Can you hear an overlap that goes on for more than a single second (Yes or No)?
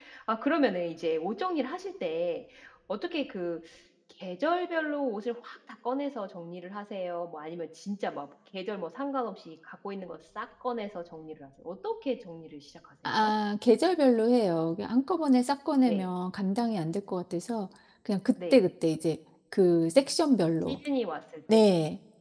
No